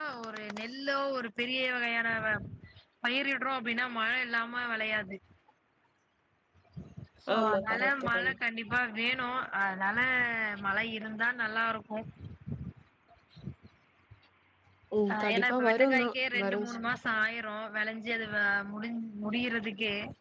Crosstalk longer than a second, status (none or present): present